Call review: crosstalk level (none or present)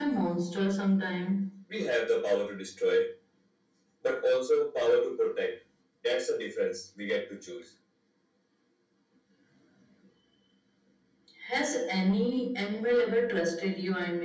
none